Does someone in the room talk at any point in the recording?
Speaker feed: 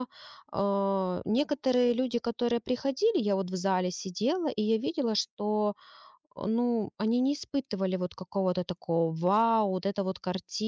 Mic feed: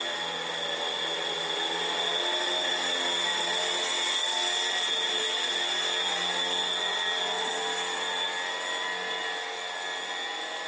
No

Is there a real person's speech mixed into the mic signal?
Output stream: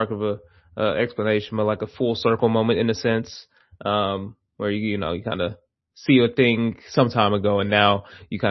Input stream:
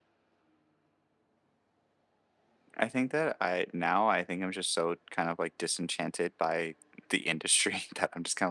Yes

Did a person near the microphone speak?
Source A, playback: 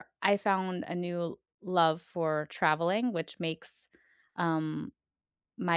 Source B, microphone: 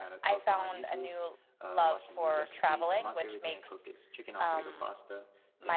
Yes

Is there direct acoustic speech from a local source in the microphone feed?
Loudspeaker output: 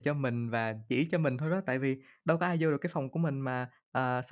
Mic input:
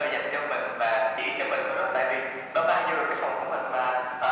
No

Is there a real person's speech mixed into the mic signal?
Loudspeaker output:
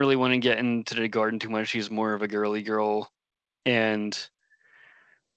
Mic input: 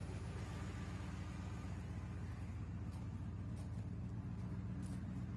No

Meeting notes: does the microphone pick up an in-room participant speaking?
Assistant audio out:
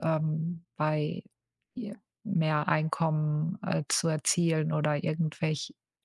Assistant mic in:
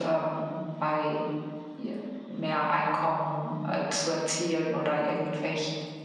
No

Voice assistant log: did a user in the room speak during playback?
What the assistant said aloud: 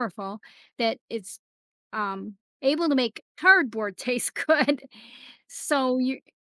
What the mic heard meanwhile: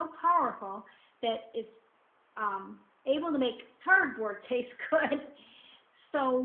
No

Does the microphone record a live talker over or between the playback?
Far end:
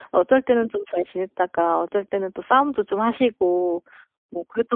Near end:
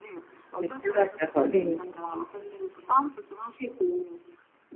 Yes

